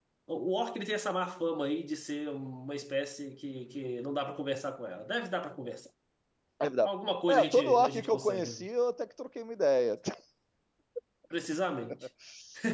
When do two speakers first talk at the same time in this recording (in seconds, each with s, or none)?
7.3 s